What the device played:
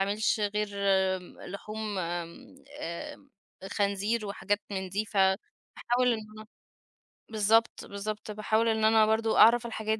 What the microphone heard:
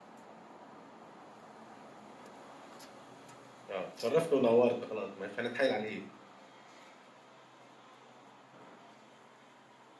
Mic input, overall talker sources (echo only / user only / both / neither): user only